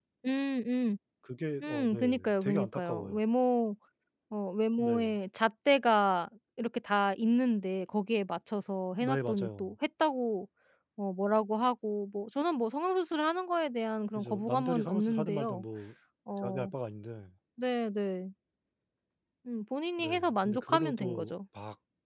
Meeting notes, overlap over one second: present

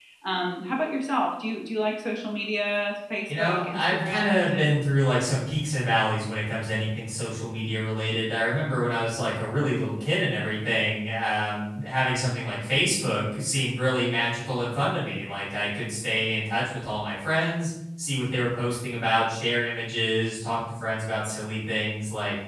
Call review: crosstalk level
present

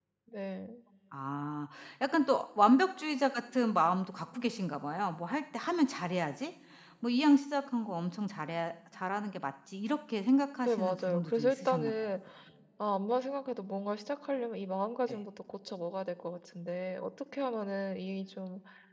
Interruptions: present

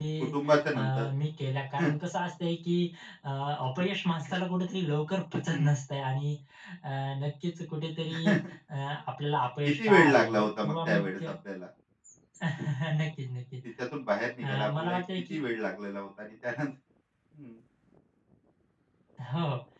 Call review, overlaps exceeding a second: present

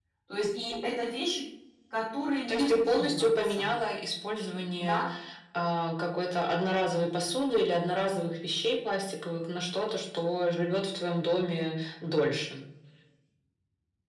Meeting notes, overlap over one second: present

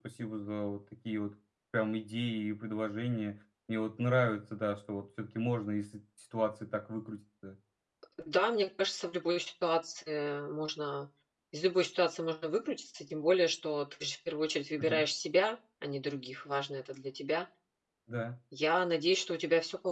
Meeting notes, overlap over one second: none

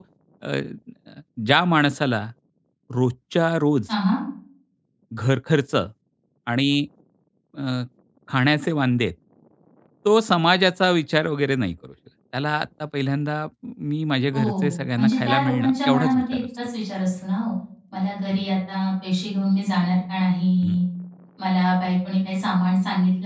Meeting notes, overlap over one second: present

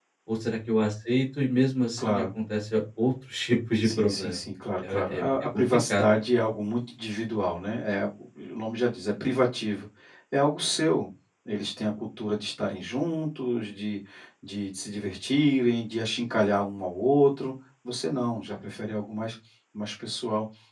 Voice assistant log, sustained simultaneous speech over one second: present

